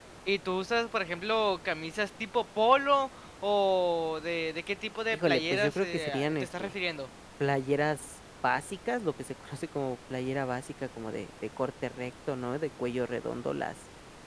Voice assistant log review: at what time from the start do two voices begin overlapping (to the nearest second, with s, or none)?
5 s